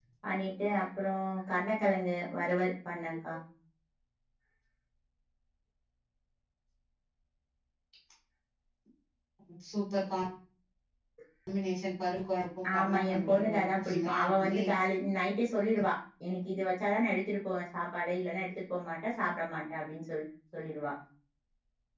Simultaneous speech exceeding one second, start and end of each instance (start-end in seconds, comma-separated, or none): 12.7-14.6